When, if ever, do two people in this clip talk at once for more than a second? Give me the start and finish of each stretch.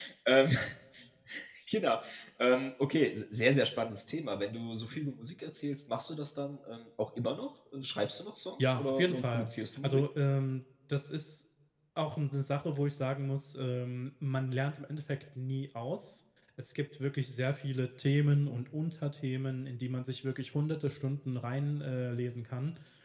8.6-10.0

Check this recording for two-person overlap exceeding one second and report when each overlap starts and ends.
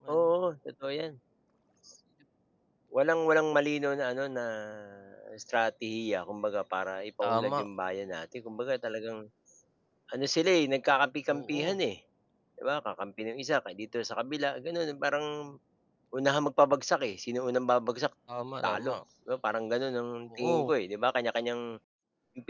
none

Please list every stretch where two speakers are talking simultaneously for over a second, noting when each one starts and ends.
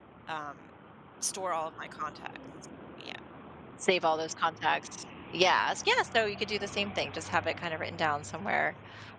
none

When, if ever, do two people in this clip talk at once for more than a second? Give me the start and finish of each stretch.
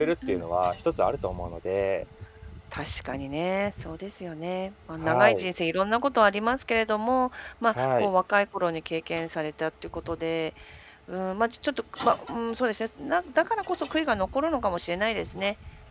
none

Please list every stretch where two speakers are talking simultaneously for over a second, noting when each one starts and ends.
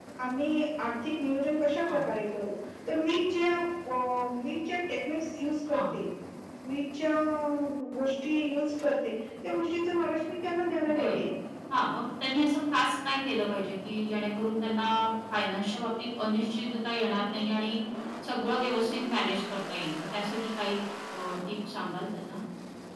none

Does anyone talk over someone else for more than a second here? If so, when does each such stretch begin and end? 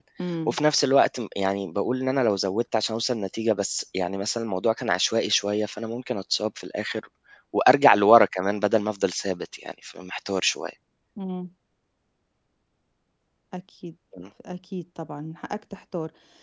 none

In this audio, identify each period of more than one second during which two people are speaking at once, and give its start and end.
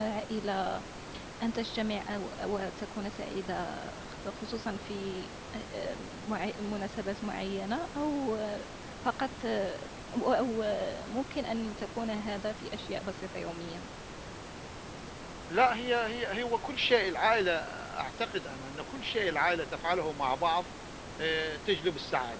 none

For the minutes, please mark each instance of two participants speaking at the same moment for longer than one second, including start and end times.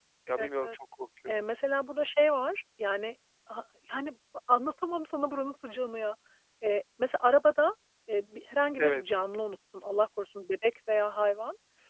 none

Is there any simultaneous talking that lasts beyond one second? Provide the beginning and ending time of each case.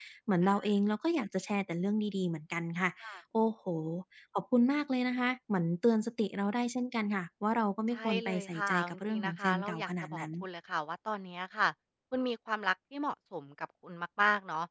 7.9-10.2

